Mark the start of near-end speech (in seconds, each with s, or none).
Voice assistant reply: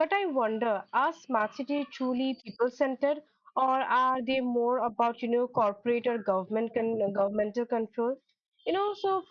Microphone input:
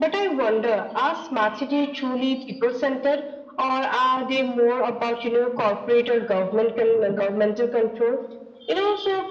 none